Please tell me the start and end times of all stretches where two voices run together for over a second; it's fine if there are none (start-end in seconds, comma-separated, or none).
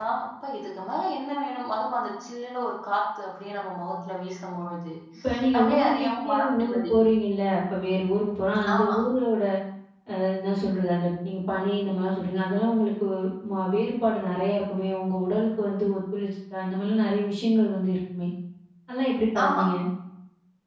5.6-6.9